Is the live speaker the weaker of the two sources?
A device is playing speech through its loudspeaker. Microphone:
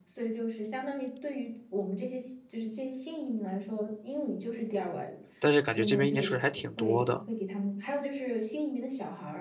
No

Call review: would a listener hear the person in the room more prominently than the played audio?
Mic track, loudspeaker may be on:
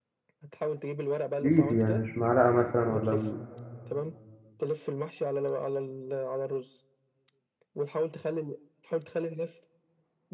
Yes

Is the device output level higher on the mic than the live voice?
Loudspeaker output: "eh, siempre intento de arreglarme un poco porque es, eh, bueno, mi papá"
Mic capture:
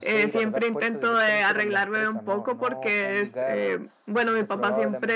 Yes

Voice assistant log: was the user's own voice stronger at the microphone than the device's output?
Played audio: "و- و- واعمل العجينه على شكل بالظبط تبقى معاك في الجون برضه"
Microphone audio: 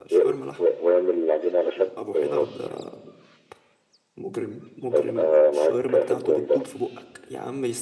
No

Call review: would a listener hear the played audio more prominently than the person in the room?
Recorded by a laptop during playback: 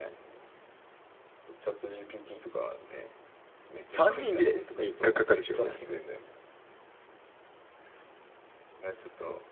No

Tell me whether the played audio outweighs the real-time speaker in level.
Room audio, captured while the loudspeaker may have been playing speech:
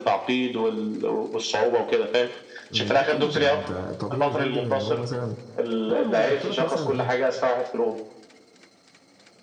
Yes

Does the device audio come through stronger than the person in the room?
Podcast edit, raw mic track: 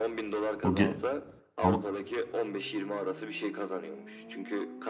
No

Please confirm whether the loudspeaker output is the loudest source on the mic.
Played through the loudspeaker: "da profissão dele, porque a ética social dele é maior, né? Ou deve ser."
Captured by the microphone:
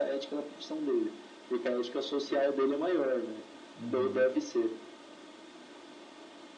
Yes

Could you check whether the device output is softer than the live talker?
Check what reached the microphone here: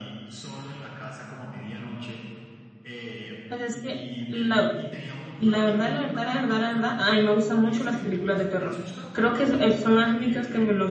Yes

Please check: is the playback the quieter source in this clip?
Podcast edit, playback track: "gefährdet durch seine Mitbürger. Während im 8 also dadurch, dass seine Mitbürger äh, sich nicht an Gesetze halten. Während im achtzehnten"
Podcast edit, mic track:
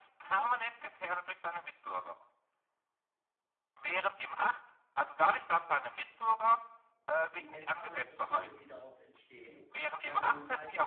No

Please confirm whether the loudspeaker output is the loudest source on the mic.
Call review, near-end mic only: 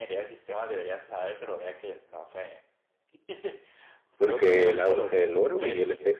No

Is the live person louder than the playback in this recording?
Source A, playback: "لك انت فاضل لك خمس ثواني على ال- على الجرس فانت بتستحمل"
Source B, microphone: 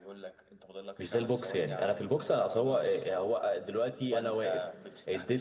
Yes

